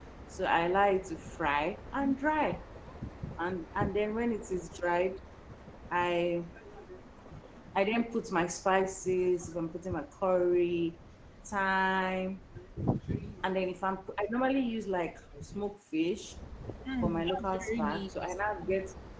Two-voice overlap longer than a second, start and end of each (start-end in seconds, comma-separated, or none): 17.0-18.3